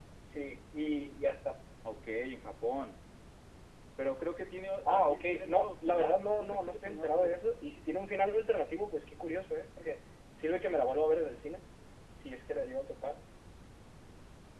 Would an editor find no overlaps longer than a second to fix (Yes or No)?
No